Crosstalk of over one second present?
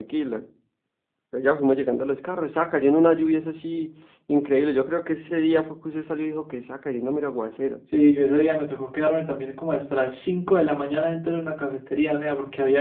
No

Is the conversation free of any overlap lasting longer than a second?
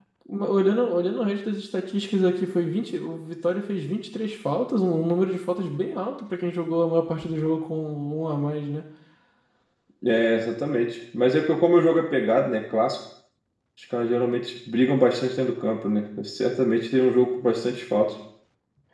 Yes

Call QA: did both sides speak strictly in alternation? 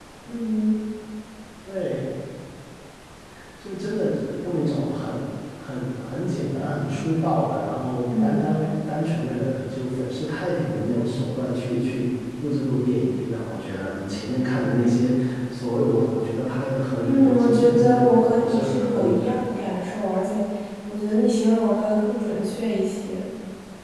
No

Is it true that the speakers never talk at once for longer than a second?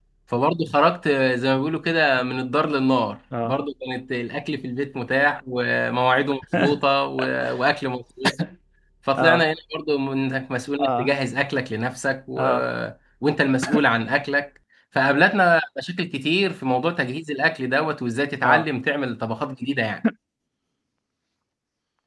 Yes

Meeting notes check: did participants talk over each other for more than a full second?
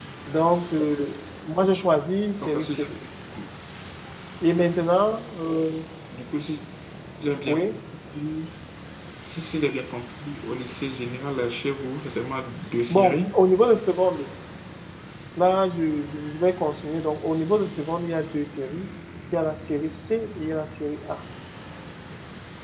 No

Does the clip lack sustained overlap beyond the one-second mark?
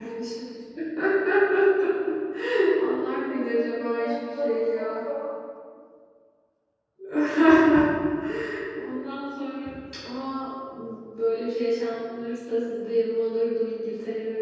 No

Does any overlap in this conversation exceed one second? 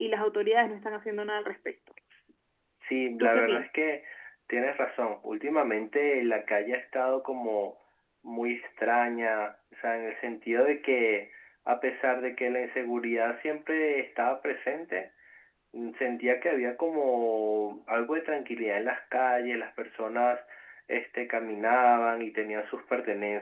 No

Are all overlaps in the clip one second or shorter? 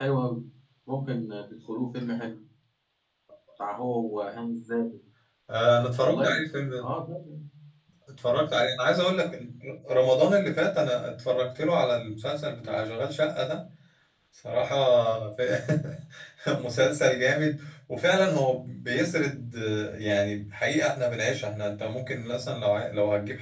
Yes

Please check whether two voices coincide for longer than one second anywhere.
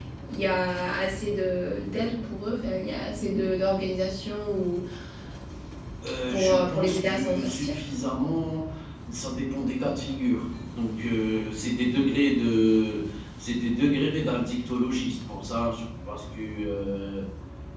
Yes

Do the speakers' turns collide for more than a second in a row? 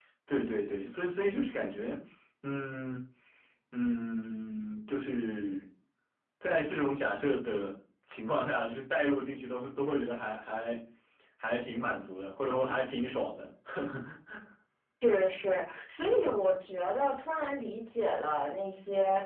No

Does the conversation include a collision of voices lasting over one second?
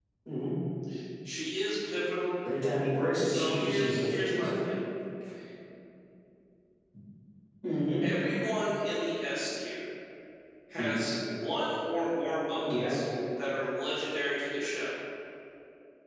Yes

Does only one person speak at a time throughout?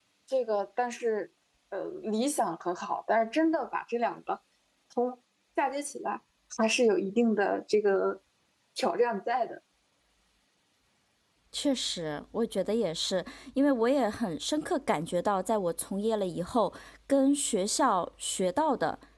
Yes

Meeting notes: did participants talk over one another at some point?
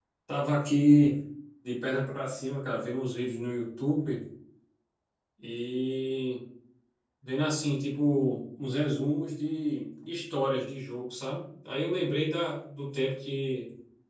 No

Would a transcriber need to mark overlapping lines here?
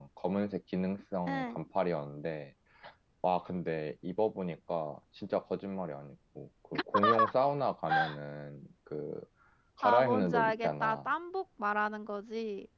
Yes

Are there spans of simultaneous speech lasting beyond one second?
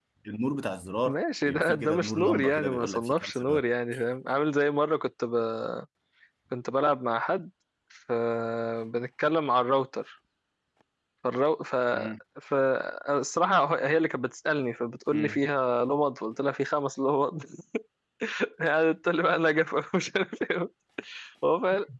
Yes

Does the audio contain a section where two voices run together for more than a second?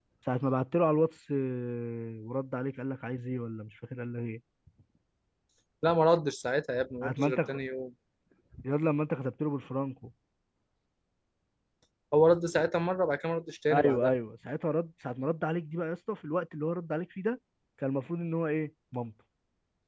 No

